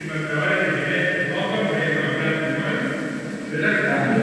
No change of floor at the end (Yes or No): Yes